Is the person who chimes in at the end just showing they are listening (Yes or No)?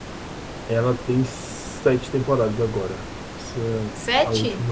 Yes